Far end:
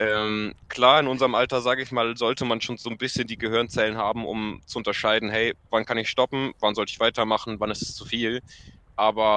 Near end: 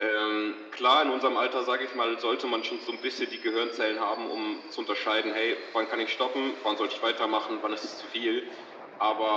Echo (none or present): present